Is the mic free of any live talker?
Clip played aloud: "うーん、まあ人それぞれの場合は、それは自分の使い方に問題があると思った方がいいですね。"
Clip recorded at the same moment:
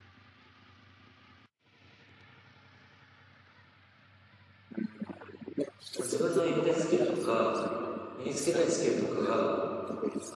No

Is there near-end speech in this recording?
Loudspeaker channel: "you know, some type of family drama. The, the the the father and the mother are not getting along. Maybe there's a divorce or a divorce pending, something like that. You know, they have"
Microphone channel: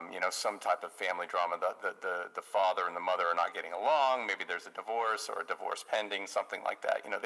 No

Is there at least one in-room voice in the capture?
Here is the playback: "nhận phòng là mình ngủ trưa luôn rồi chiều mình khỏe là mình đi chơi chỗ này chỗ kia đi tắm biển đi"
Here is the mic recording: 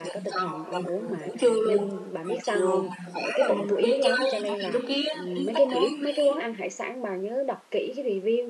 Yes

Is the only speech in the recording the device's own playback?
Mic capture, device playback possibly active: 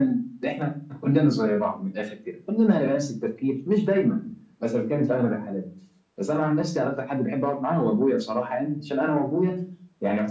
Yes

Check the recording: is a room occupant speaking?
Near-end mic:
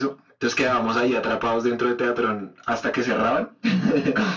No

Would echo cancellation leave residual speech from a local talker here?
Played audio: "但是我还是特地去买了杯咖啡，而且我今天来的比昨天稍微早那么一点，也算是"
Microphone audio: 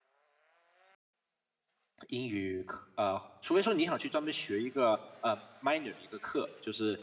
Yes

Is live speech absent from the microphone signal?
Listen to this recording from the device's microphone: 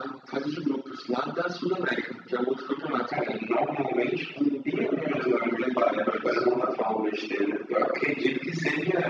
Yes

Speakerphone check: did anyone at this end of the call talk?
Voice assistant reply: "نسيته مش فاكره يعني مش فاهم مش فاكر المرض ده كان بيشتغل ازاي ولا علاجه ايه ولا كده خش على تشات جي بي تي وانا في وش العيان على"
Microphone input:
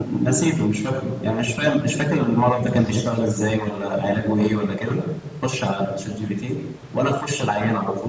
Yes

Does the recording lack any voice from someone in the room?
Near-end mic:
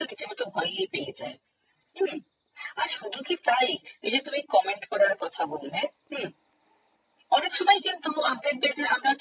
Yes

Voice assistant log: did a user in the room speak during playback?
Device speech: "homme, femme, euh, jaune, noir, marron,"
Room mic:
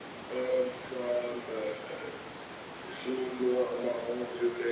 No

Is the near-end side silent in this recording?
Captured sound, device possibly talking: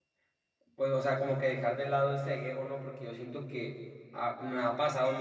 No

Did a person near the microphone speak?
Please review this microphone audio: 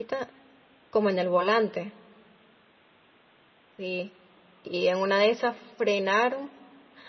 Yes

